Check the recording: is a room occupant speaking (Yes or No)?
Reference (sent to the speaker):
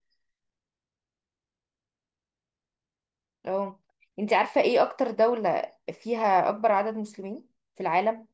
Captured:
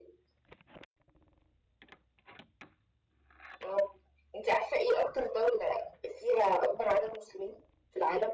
No